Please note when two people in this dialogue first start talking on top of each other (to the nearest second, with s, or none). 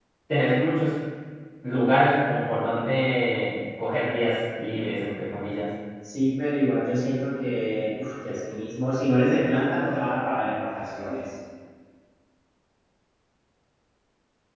none